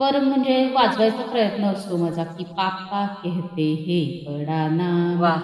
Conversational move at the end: listening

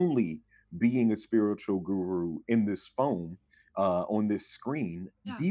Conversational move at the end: listening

